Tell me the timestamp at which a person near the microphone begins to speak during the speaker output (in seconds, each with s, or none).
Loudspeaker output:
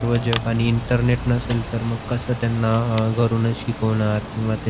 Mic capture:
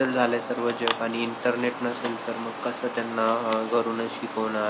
none